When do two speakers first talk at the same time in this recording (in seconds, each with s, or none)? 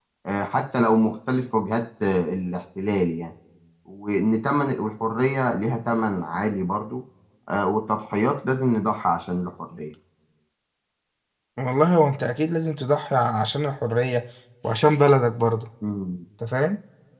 none